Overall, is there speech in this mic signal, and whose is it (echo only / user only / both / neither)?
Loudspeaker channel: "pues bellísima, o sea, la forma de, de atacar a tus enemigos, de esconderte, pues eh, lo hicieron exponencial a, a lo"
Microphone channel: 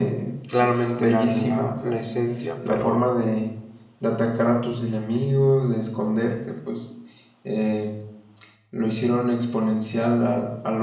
both